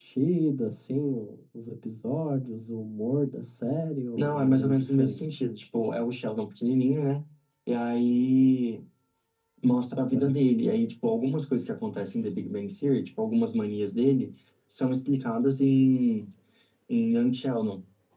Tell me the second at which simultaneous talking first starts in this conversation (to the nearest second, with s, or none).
4 s